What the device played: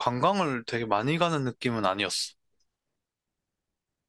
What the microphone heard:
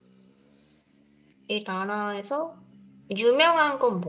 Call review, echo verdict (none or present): none